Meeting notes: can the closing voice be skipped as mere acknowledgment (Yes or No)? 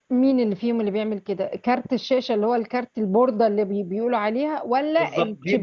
No